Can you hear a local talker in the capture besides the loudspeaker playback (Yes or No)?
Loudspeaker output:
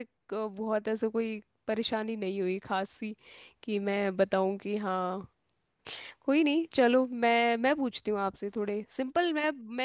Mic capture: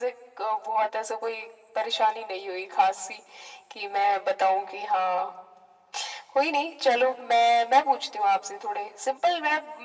No